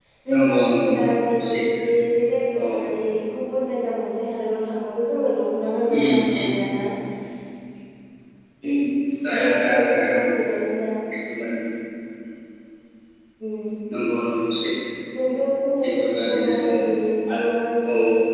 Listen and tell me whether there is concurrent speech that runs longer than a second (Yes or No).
Yes